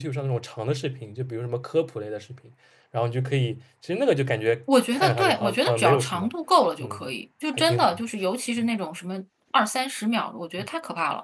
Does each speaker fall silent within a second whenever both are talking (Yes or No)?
No